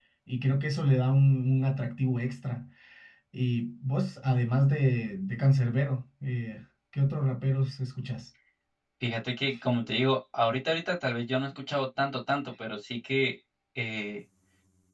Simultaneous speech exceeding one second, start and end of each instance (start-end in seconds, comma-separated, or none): none